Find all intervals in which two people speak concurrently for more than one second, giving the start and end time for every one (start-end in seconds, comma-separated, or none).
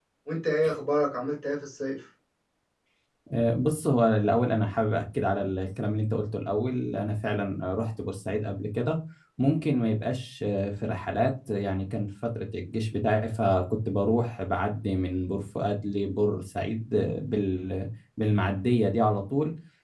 none